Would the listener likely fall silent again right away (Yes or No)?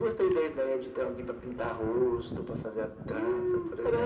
No